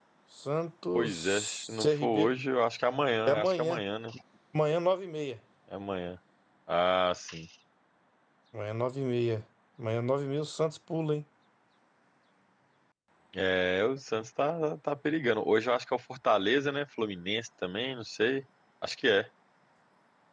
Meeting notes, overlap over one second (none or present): present